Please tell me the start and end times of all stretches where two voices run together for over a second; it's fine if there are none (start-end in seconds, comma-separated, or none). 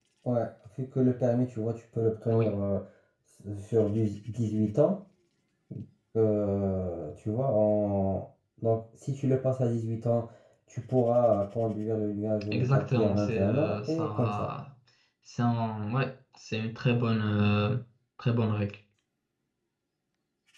12.5-14.5